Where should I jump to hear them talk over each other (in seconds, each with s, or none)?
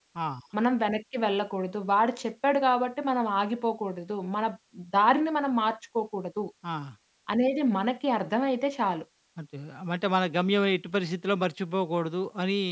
none